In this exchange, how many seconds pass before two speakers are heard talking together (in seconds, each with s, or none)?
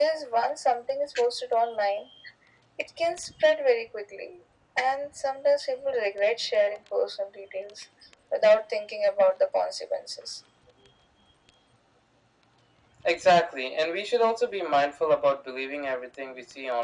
none